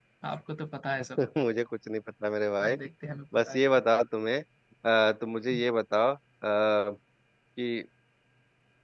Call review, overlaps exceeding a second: none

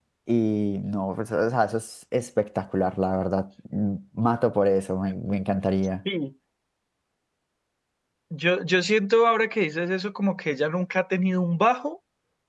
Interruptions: none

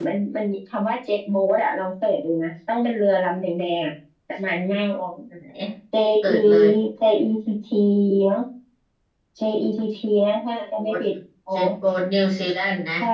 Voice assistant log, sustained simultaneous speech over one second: none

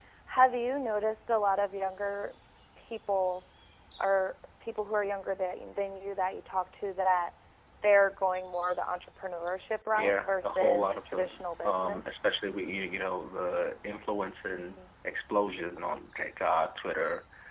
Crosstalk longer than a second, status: present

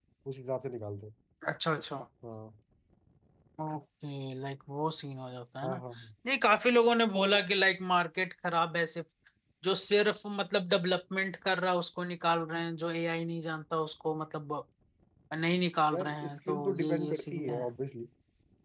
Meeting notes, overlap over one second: present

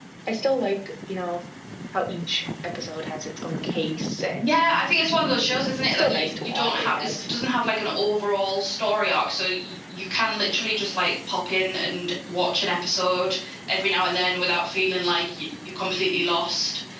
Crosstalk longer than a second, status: present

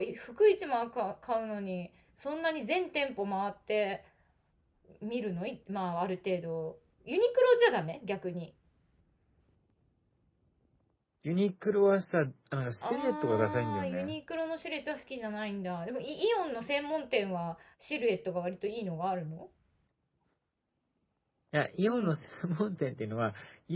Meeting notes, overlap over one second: present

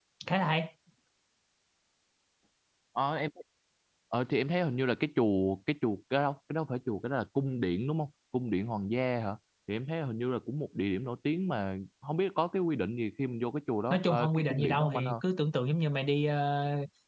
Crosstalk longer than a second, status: present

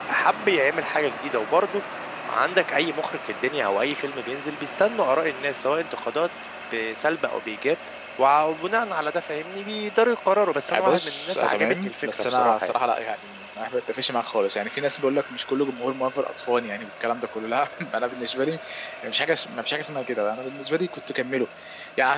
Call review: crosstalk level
present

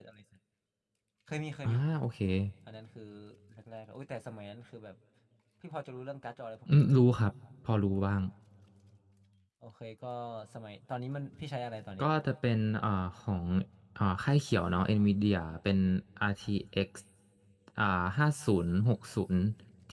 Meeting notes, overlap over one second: none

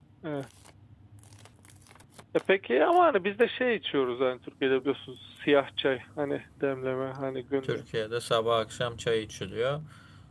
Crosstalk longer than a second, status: none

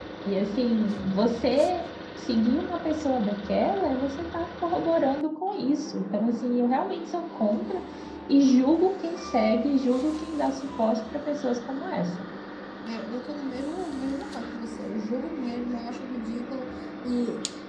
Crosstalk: none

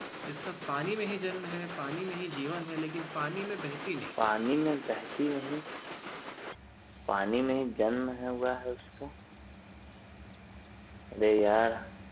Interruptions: none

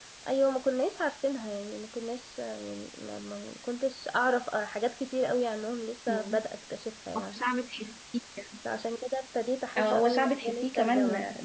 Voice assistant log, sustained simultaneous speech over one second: present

